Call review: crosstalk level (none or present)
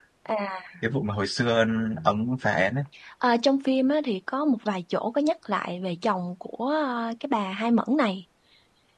none